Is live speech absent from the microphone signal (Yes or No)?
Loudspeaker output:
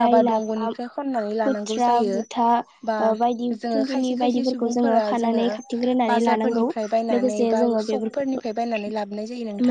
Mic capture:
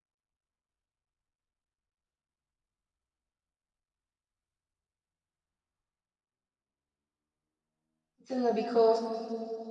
No